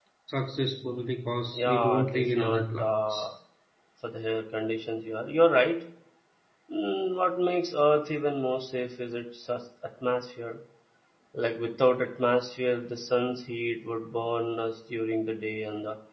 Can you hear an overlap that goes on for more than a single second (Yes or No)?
Yes